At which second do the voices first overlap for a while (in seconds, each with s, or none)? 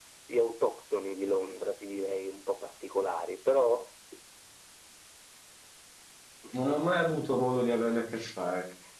none